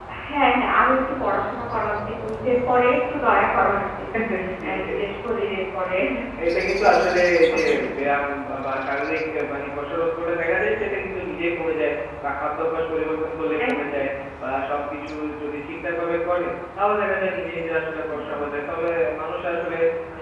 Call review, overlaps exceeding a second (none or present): none